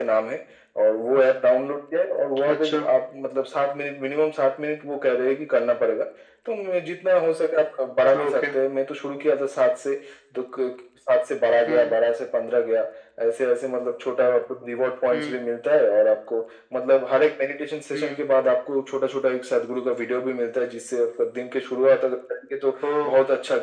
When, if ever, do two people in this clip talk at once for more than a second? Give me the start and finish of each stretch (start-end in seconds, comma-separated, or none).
none